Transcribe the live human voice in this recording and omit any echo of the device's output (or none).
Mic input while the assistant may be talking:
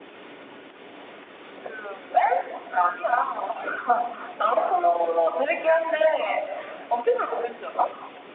none